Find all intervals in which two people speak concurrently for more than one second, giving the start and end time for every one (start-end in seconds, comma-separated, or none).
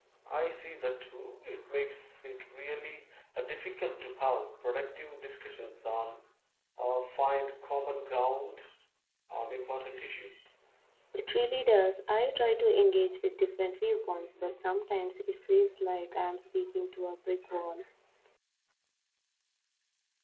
none